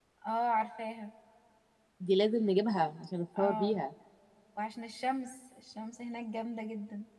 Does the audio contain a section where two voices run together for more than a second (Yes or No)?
No